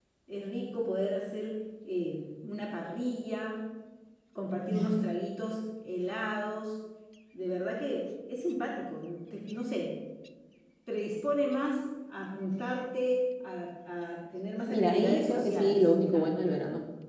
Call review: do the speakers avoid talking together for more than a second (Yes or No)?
No